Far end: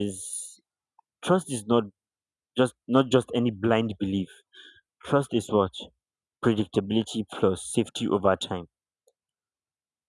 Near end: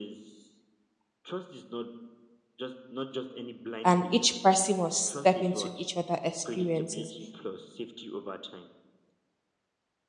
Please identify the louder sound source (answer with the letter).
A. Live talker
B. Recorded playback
A